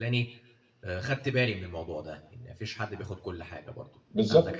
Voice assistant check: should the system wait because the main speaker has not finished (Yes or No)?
No